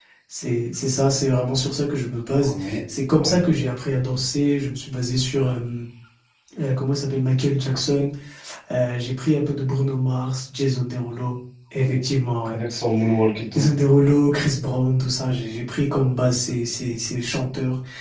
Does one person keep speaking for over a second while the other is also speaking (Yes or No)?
No